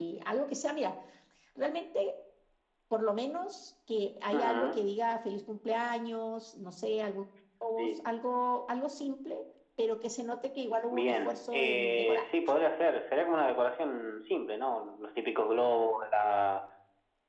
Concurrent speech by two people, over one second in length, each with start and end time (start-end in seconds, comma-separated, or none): 10.9-12.3